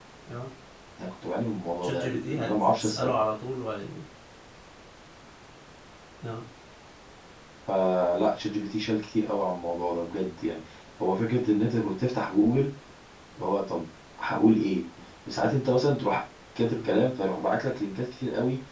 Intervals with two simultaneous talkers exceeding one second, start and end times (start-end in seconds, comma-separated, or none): 1.8-3.1